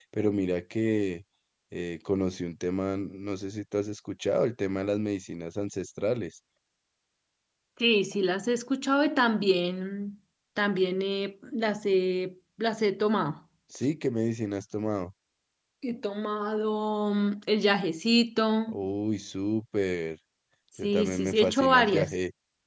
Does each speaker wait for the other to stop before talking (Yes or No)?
No